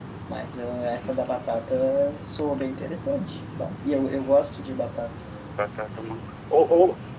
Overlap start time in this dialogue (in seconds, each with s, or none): none